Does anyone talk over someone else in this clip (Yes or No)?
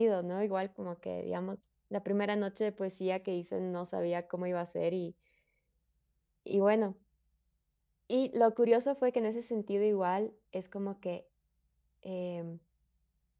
No